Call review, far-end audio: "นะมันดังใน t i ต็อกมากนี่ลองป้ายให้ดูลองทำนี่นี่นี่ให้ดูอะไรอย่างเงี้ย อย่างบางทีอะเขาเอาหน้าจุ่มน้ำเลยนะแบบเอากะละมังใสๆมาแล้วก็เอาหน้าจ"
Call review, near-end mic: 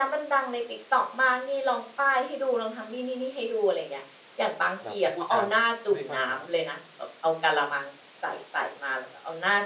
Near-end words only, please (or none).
แบบเขาพูดจาไม่ค่อยเพราะ